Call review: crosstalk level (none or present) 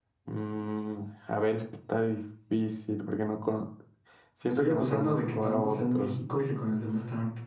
present